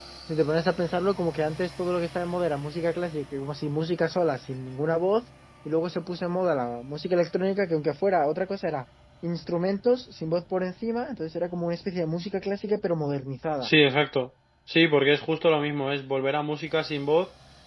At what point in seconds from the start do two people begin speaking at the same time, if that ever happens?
none

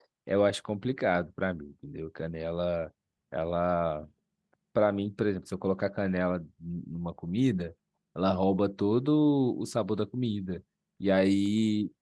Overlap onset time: none

